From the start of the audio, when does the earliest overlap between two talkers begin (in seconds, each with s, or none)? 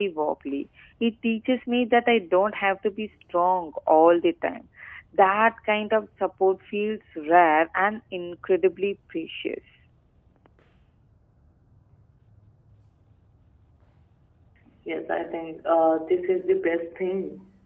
none